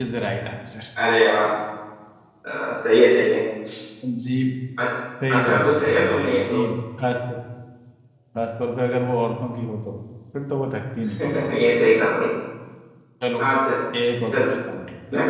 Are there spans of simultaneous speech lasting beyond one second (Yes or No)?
Yes